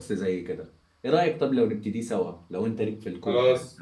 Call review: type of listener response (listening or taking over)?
taking over